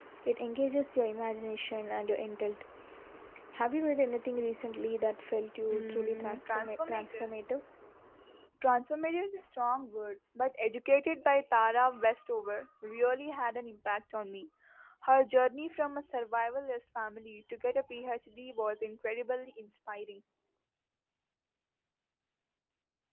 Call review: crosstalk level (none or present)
present